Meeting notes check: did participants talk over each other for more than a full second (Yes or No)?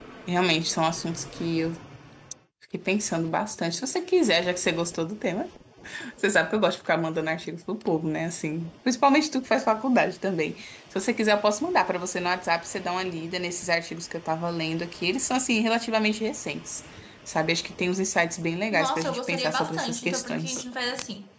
Yes